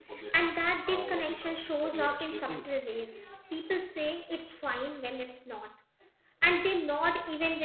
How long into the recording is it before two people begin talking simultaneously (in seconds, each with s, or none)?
0.9 s